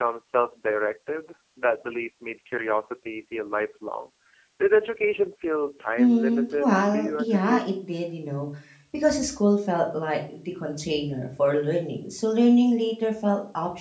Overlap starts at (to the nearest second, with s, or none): 6 s